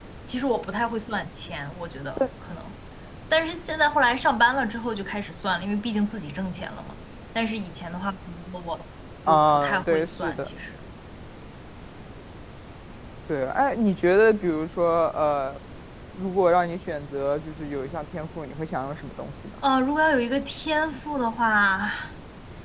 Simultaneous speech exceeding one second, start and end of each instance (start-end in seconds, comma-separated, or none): 9.3-10.5